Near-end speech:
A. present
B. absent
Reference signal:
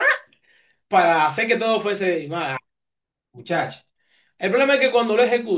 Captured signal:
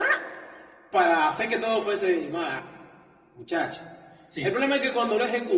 A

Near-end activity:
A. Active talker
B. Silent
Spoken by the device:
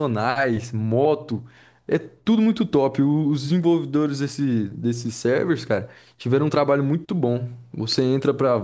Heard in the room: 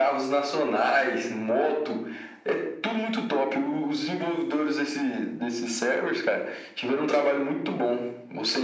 B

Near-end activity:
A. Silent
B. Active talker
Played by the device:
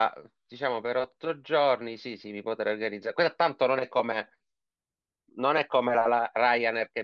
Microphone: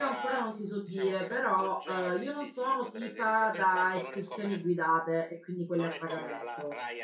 B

